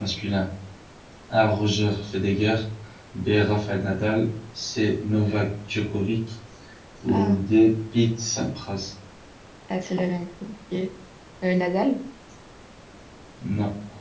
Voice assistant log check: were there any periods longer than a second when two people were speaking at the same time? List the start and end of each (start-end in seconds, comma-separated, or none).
none